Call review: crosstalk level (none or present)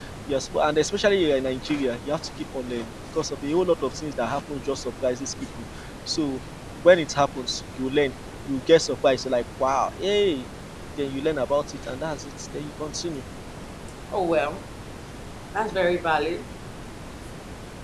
none